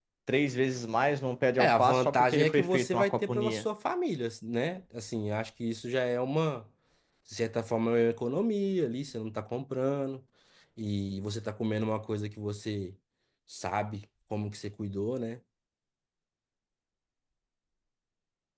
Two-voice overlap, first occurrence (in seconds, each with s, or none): 1.6 s